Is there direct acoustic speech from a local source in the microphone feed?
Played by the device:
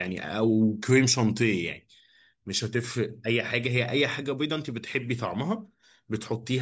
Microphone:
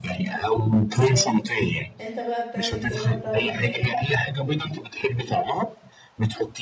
Yes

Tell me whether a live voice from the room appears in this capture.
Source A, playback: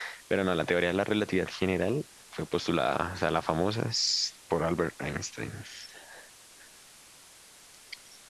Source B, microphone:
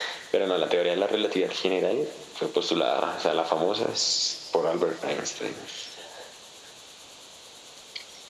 No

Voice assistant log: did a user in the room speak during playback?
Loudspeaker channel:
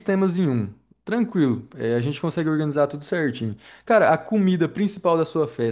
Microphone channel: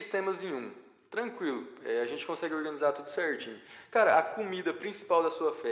No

